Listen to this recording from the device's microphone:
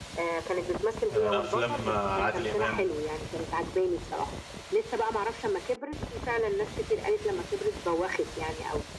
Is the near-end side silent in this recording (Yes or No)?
No